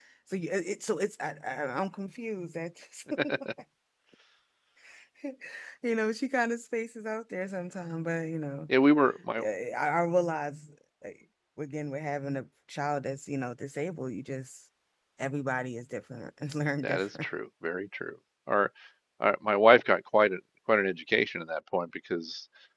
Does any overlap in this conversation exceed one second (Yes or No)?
No